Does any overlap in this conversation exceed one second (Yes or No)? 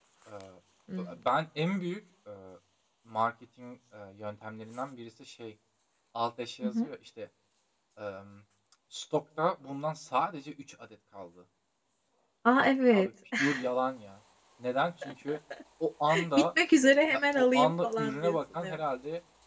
Yes